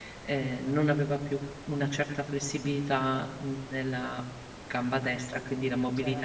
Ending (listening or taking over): taking over